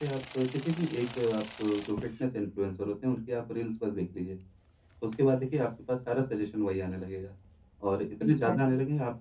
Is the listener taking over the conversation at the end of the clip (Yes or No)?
No